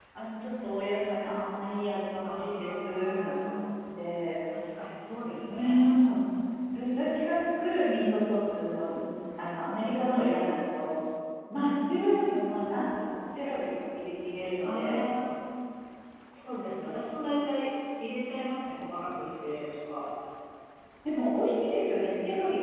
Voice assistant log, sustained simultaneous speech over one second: present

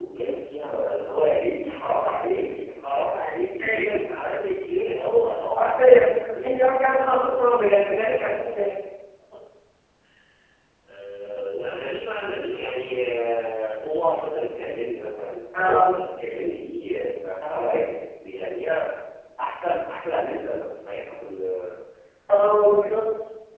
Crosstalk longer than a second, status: present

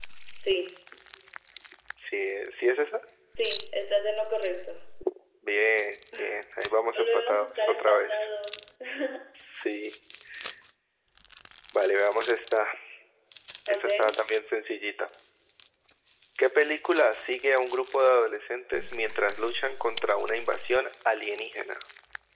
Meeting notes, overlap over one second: present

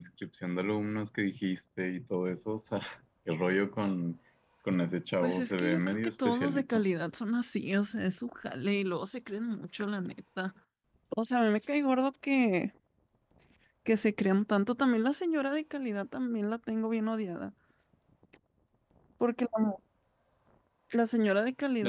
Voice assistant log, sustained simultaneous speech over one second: present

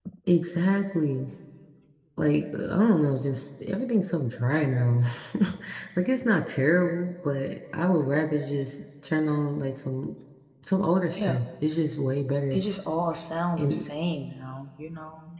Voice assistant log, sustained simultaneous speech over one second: none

